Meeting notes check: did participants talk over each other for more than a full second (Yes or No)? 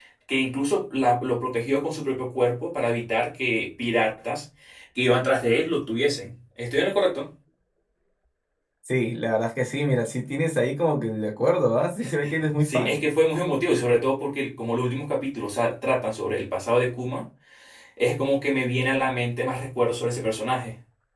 No